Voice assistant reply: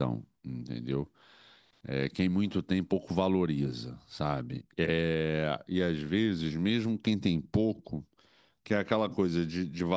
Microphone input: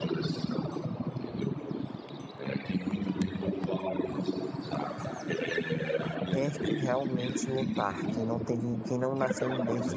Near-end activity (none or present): present